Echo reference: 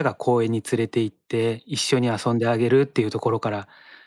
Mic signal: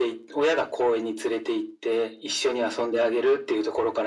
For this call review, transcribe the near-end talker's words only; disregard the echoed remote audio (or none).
none